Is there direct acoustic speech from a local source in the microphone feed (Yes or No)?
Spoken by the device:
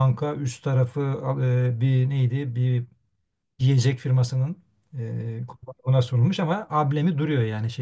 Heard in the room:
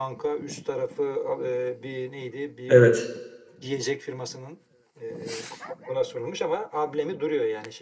Yes